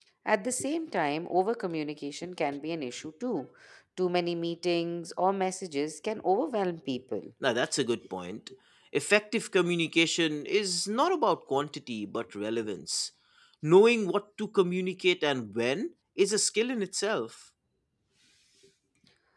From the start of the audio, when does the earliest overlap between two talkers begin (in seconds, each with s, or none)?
none